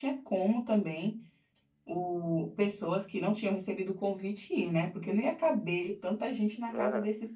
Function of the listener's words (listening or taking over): taking over